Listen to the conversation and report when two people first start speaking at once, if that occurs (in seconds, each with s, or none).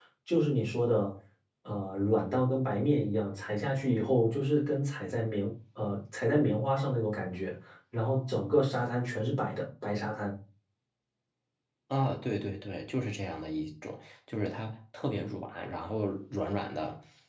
none